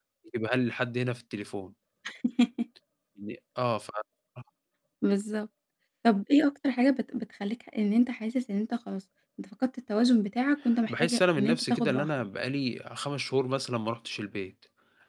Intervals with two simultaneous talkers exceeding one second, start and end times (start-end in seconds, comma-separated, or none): 10.9-12.1